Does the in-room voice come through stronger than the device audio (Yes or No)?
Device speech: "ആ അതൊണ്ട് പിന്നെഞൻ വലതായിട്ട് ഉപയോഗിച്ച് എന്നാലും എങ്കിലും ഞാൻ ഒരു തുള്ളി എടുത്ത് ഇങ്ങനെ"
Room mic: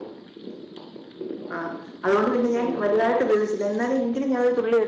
No